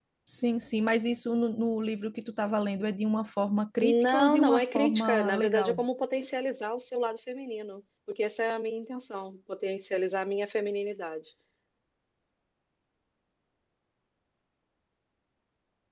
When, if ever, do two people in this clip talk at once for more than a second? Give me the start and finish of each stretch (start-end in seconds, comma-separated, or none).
3.8-5.8